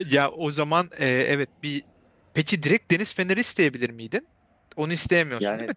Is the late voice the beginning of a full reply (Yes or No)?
Yes